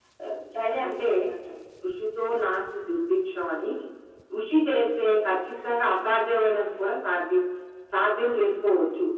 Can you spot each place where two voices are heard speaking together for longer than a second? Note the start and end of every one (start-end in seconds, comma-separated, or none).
none